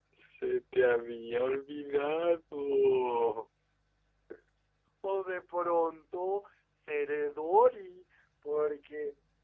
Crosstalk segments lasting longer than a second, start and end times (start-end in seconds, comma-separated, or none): none